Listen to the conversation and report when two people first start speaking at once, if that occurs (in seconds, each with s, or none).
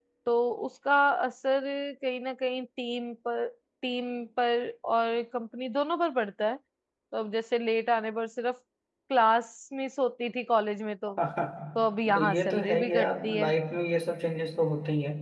12.1 s